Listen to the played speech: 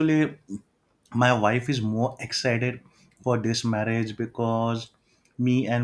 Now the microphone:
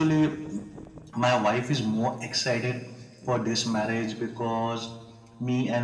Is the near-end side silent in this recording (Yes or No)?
Yes